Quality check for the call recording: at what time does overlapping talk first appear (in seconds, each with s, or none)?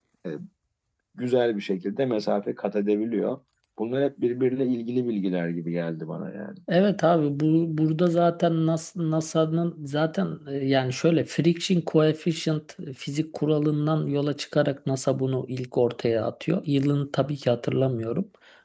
none